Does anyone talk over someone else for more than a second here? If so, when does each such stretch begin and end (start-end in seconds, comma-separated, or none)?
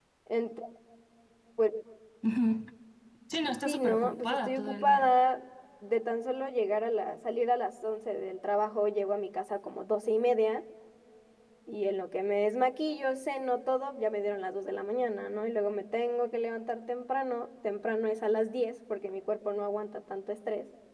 3.6-5.1